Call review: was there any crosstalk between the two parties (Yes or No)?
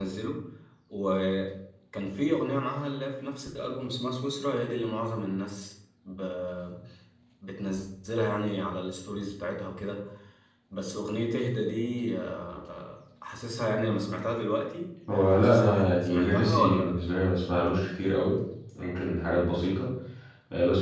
Yes